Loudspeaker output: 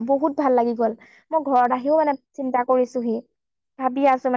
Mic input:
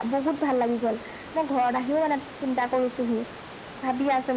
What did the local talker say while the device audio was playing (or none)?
none